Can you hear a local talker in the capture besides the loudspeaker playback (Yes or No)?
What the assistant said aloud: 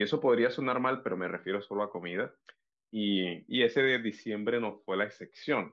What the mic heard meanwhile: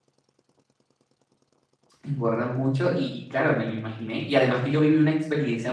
Yes